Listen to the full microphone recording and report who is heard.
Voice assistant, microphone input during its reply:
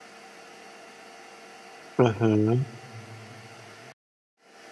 user only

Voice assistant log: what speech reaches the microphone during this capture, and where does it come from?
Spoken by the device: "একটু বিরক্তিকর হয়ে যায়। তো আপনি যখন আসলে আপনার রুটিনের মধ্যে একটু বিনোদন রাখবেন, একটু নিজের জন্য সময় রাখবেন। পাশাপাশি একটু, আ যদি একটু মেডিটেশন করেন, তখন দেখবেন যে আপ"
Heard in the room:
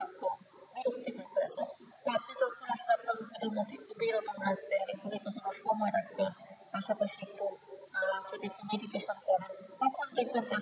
echo only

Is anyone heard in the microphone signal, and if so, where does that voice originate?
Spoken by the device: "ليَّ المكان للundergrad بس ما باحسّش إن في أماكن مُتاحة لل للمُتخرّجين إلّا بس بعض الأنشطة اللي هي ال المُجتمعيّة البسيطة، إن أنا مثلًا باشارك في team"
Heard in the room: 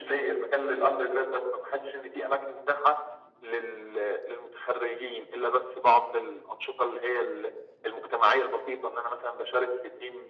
echo only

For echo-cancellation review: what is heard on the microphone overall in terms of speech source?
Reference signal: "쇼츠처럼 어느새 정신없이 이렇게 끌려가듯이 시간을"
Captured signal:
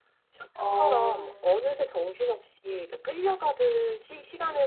both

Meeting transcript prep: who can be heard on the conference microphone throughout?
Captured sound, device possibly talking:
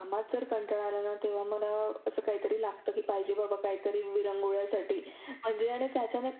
echo only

